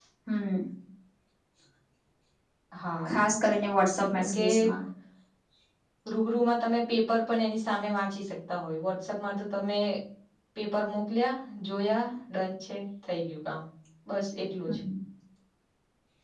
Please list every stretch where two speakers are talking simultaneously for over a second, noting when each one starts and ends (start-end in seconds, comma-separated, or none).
none